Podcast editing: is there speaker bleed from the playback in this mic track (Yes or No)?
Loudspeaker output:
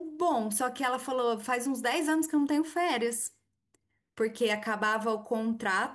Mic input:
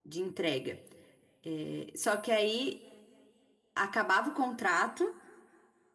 No